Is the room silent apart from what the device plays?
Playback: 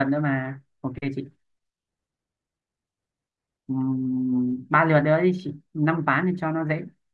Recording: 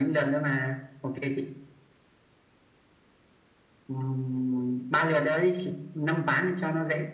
Yes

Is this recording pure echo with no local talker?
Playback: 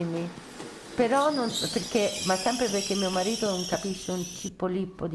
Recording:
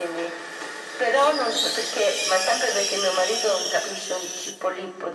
Yes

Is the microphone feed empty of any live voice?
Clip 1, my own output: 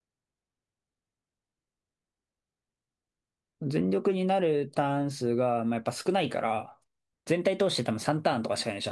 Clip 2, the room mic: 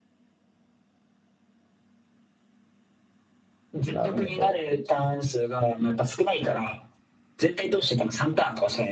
No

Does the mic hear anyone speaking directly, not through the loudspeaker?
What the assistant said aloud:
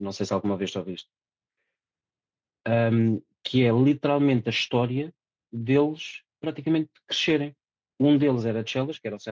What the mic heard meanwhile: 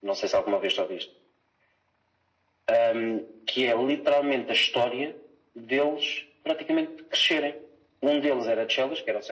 No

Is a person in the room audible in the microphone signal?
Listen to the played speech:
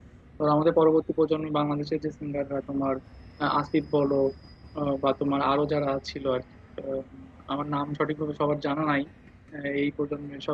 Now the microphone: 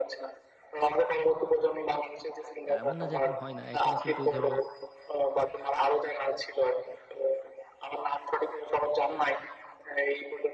Yes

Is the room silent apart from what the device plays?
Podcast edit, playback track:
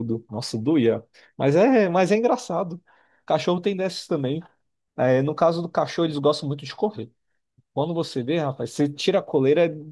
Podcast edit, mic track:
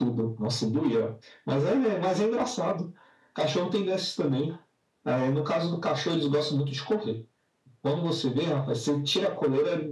Yes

